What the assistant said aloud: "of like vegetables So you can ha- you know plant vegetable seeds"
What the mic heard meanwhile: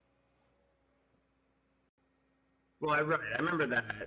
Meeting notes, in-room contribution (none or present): present